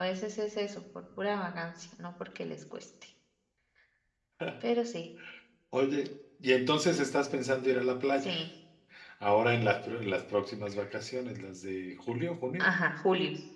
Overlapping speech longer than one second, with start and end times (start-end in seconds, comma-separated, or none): none